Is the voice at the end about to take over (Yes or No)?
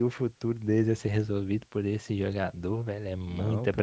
Yes